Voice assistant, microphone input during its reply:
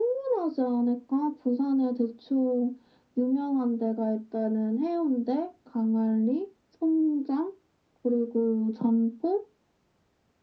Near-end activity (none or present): none